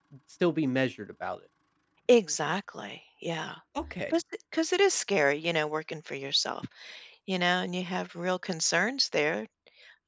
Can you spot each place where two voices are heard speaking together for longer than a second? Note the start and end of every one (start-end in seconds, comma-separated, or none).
none